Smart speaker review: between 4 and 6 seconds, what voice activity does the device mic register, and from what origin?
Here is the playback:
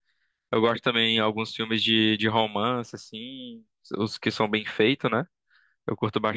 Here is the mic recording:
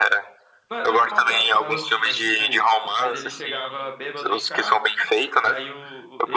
both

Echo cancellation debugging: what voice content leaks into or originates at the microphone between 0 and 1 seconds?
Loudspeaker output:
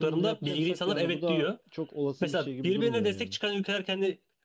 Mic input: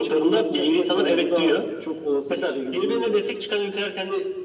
echo only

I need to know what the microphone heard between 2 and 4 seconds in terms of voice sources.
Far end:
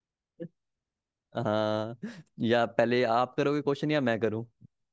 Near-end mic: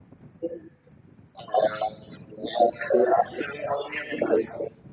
echo only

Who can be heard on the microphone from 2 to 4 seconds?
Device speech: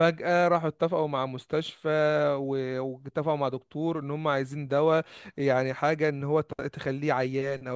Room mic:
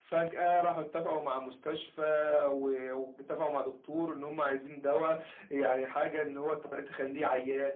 echo only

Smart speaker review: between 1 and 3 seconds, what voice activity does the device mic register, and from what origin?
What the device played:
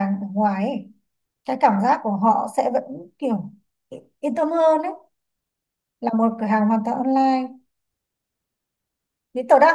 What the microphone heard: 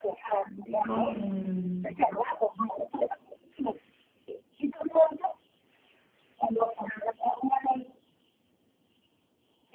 both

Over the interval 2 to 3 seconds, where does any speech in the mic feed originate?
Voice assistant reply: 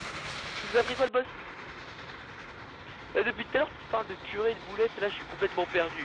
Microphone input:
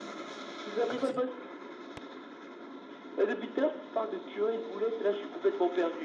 neither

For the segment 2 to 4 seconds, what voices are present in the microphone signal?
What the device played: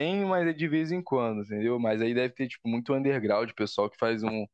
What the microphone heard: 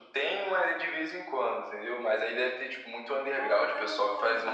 both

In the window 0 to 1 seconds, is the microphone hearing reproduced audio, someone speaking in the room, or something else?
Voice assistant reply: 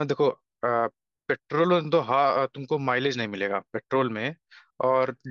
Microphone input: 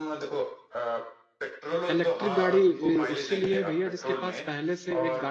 echo only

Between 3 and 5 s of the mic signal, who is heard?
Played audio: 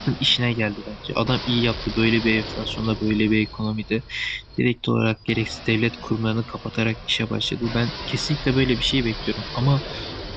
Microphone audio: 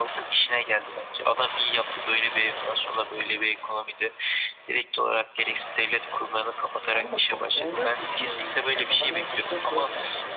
echo only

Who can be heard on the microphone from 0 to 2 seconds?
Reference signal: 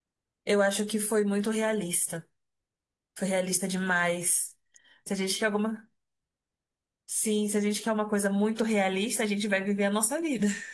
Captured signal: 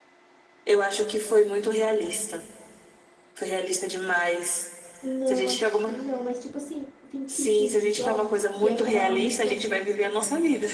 echo only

